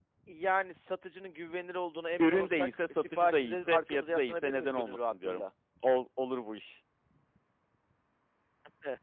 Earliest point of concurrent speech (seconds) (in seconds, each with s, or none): 2.2 s